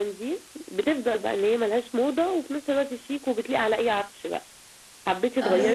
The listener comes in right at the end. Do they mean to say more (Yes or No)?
No